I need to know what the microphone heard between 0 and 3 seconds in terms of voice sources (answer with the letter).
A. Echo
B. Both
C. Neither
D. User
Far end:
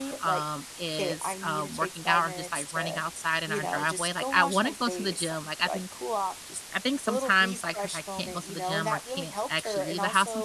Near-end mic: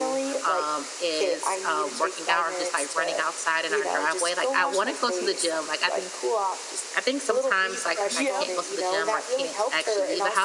A